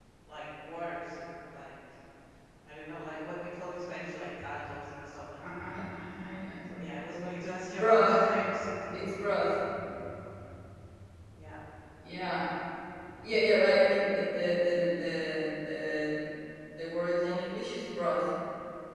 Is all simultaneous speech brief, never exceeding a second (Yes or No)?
Yes